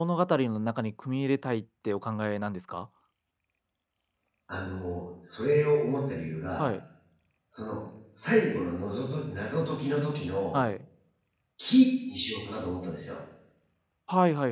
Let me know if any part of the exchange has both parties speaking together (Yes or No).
No